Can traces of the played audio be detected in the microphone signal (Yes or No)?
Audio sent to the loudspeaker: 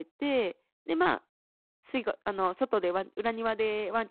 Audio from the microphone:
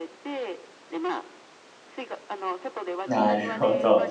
Yes